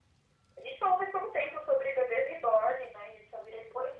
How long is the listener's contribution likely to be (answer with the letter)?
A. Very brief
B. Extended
B